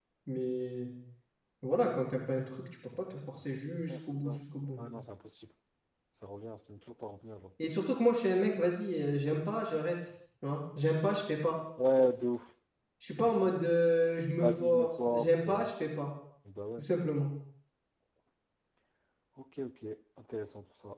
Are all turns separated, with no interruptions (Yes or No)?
No